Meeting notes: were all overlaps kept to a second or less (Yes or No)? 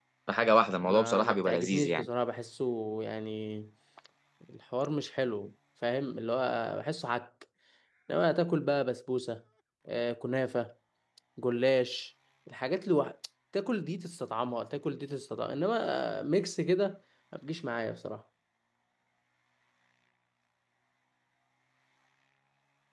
No